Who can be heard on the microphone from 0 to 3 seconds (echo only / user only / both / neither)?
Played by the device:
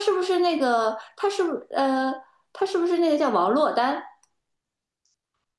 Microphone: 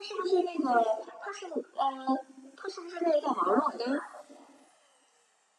echo only